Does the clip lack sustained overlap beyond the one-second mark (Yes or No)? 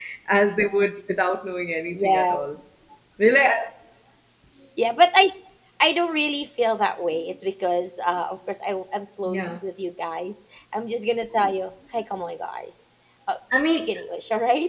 Yes